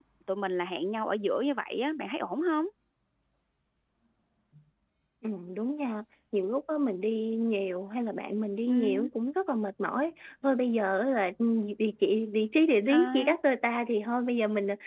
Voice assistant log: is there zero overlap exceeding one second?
Yes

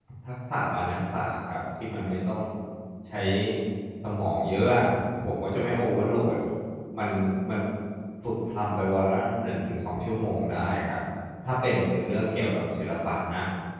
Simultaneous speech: No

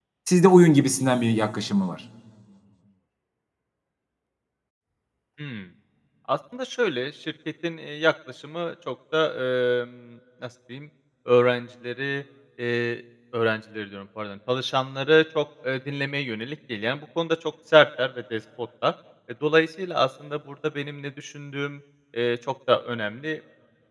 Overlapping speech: No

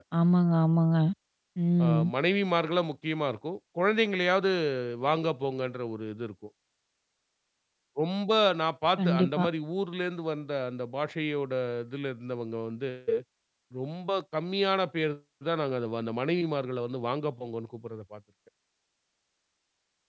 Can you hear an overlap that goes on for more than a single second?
No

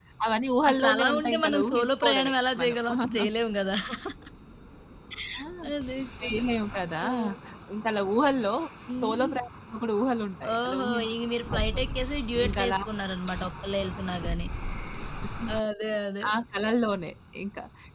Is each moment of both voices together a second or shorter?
No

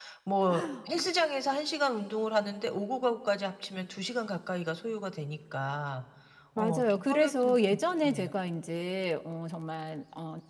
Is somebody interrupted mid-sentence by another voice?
Yes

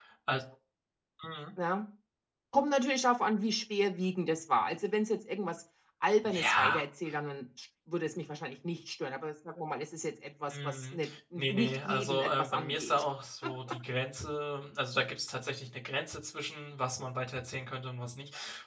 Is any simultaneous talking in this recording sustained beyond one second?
Yes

